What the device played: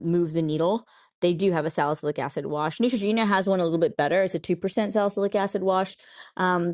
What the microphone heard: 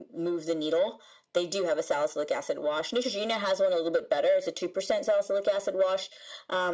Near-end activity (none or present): none